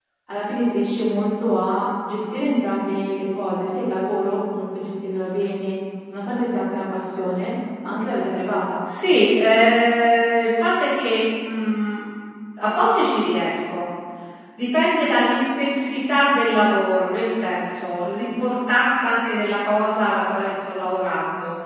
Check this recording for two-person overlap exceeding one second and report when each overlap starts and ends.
none

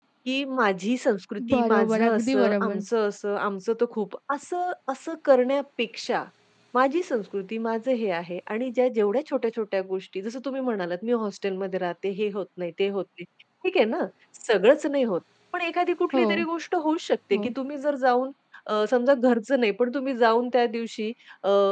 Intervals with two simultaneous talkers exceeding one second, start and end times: 1.5-2.8

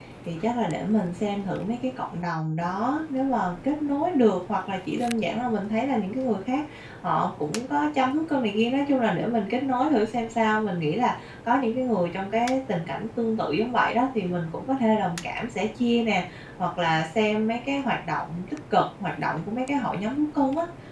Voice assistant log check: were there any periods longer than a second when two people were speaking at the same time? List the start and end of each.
none

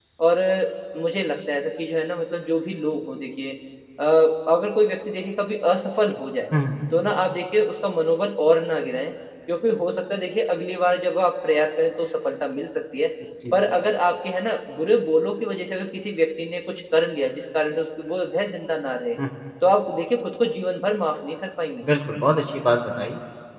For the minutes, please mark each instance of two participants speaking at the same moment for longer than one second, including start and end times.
none

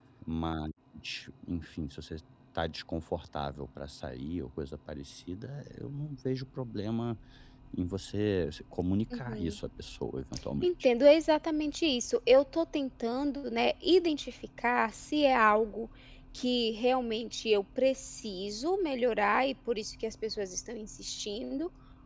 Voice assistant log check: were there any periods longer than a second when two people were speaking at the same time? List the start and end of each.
none

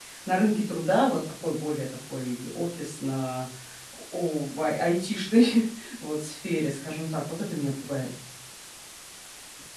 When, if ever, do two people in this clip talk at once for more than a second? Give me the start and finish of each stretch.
none

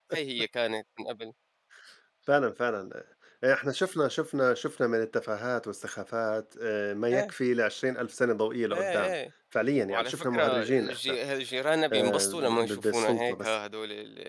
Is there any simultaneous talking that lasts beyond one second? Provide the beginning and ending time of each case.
9.9-11.2, 11.9-13.5

